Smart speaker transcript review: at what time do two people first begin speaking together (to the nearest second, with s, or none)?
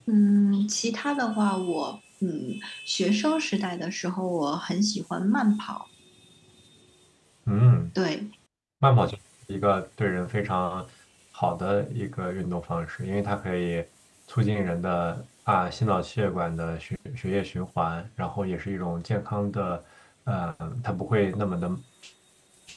none